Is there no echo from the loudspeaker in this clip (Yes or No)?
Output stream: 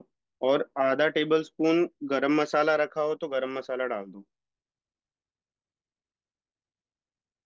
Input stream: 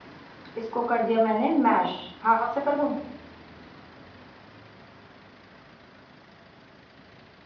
Yes